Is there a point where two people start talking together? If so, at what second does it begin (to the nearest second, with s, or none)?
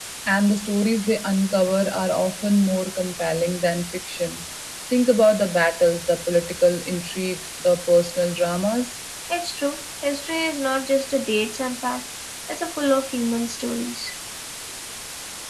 none